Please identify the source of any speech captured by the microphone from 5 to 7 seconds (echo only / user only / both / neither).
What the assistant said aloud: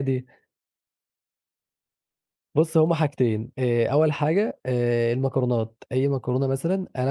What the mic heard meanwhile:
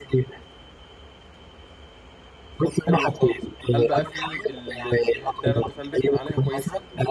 both